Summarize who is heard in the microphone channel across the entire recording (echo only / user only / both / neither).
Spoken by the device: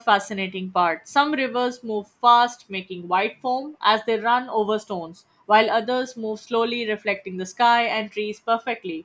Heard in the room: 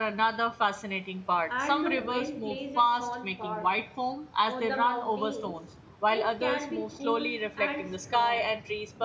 both